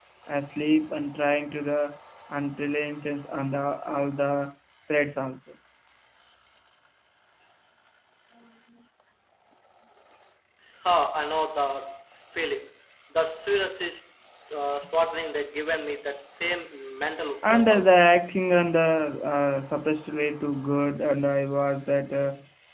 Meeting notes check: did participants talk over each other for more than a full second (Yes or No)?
No